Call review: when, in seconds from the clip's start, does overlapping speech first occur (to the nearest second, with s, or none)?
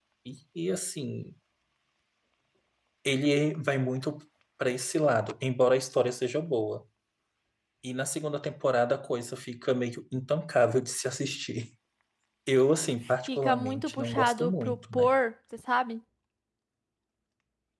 13 s